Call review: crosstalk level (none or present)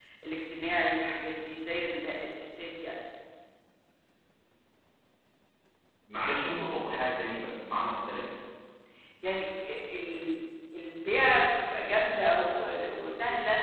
none